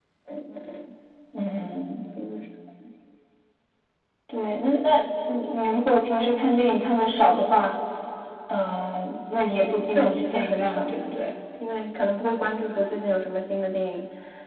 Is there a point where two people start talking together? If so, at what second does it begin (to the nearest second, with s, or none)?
10 s